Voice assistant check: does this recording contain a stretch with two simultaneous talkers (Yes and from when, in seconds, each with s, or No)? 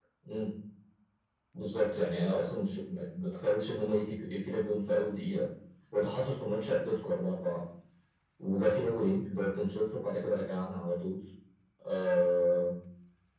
No